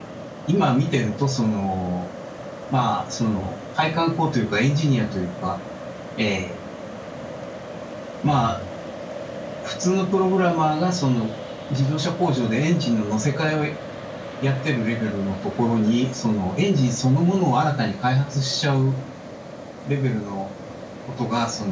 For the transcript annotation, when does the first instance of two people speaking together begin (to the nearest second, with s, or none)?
none